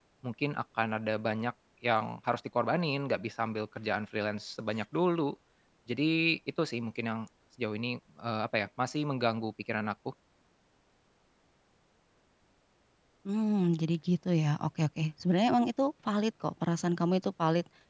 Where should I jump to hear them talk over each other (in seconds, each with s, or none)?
none